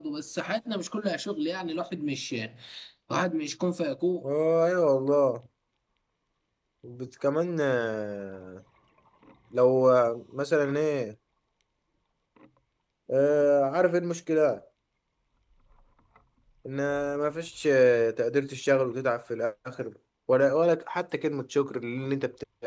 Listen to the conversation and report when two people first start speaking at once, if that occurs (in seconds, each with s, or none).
none